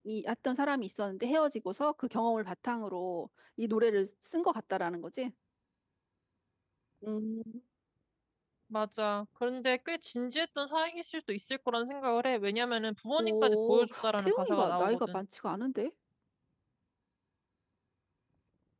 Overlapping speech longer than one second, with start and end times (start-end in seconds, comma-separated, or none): 13.2-15.2